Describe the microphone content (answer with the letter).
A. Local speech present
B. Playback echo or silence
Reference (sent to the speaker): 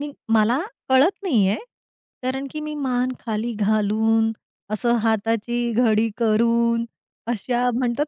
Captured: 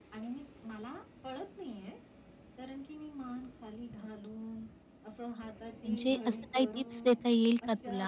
A